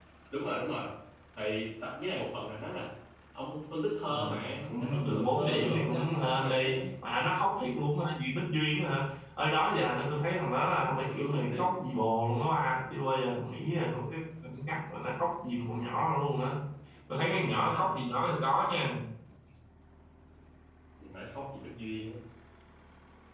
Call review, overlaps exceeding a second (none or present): present